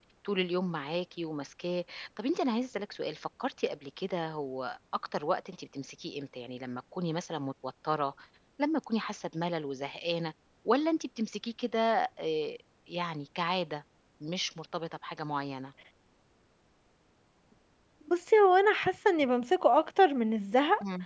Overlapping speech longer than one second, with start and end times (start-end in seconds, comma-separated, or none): none